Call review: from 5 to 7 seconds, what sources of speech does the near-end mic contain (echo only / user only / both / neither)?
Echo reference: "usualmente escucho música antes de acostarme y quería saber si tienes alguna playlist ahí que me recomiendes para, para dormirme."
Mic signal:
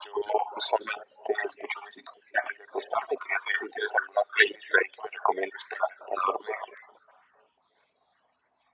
echo only